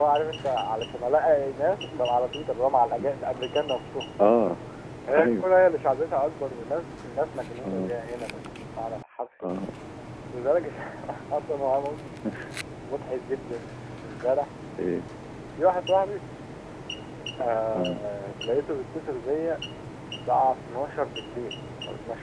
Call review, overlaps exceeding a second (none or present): none